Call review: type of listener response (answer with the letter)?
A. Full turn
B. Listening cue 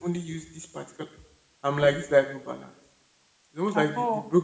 B